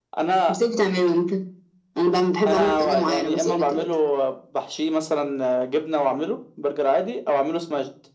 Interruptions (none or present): present